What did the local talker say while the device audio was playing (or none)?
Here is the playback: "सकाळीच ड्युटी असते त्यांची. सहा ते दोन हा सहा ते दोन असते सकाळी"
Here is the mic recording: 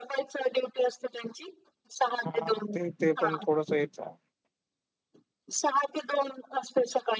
हां ते-ते पण थोडसं हेचाय.